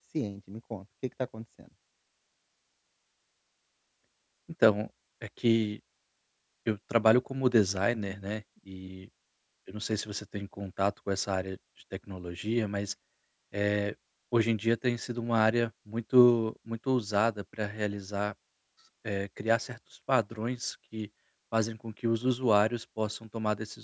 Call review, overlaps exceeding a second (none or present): none